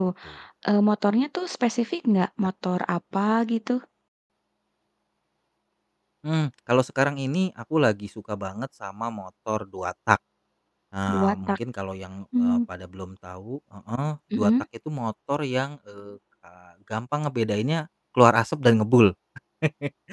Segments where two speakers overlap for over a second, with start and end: none

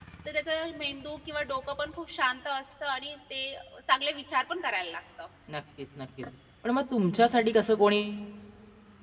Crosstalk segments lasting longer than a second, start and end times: none

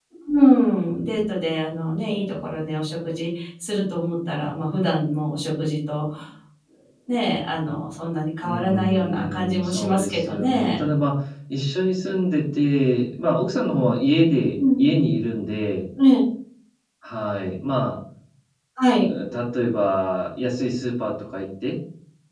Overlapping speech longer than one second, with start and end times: 8.4-10.9

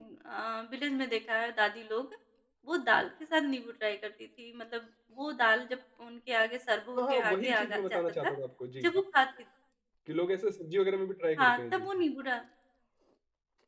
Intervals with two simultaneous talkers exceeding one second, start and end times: 7.0-8.3

